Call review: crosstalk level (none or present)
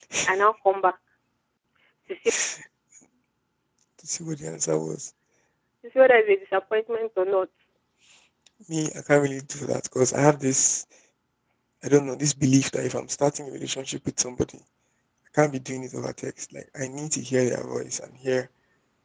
none